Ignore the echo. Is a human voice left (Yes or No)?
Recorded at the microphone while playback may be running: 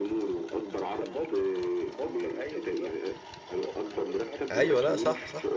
Yes